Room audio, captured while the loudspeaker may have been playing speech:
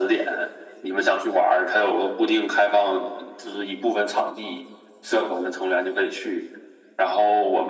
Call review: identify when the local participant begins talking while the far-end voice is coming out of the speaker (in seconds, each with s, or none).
none